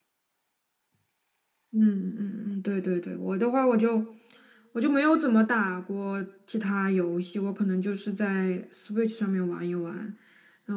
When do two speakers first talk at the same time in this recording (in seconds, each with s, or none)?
none